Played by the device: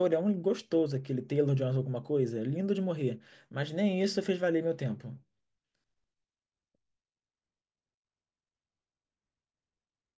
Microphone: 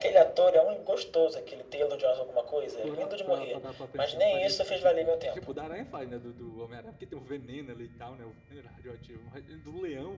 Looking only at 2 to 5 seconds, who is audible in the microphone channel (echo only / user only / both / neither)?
both